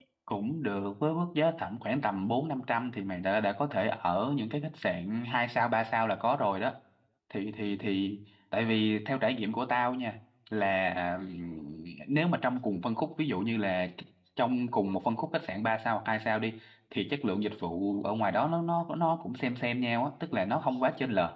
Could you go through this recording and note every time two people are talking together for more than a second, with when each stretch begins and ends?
none

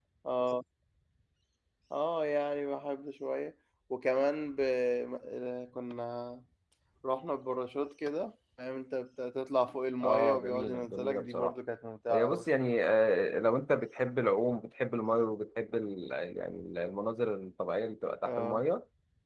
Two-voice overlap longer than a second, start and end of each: 10.0-11.5

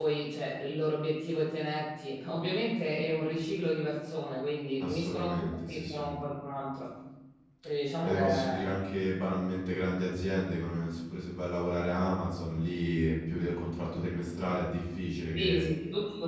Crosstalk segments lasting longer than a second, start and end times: 4.8-6.1

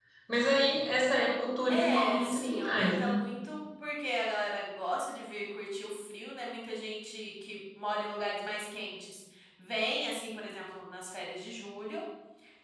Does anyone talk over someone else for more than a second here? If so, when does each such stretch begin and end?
1.7-3.2

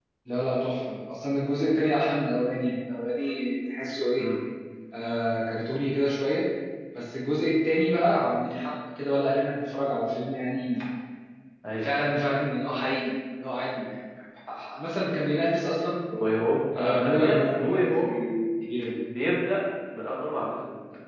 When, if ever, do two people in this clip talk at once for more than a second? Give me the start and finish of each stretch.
16.8-18.2

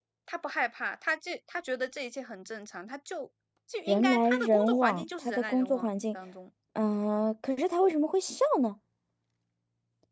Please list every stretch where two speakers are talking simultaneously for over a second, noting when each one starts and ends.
3.9-5.9

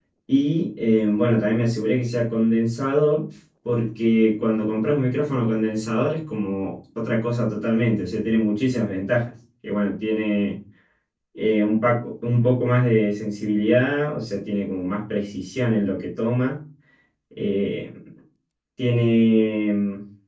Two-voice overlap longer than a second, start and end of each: none

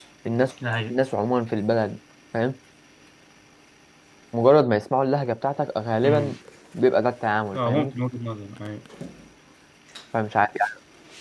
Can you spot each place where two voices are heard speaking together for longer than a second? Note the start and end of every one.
none

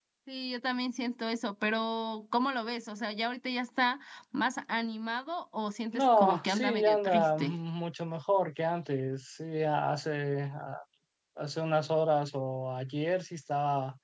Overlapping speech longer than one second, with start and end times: 5.9-7.6

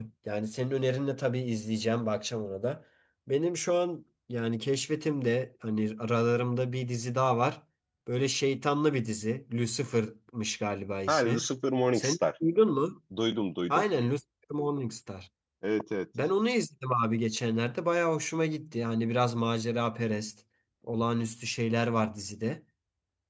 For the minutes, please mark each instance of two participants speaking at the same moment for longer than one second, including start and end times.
none

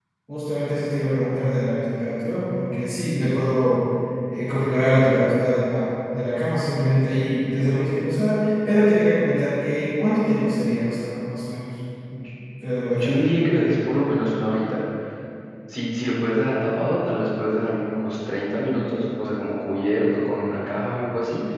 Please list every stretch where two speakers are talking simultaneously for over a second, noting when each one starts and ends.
none

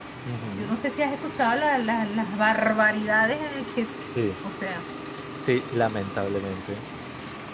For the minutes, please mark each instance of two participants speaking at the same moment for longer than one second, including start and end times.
none

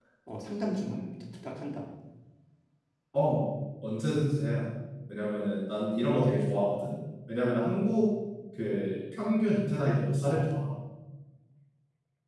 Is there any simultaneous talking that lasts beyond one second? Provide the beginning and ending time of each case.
none

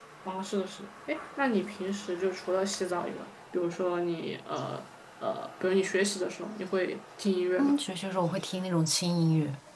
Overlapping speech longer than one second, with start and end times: none

